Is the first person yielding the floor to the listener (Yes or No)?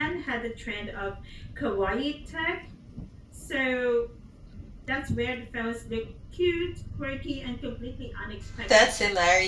Yes